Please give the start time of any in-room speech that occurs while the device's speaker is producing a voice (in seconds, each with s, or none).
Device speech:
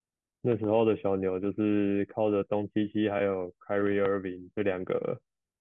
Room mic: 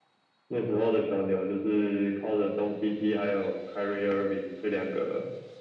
none